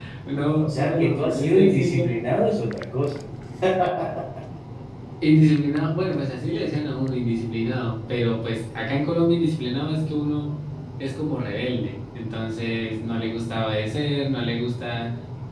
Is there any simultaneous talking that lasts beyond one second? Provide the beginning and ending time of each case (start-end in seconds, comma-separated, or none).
0.6-2.1